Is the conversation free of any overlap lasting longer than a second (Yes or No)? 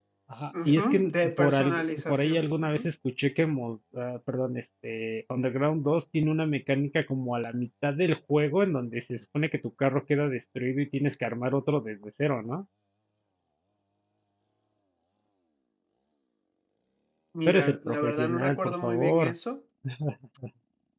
No